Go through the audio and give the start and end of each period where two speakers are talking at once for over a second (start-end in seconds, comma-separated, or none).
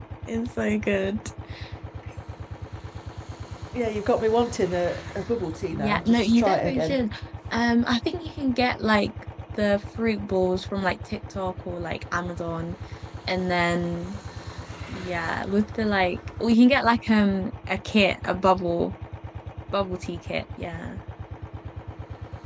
5.7-7.0